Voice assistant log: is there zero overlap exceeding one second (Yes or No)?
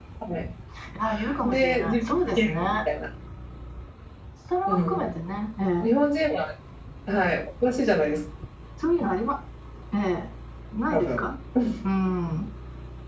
No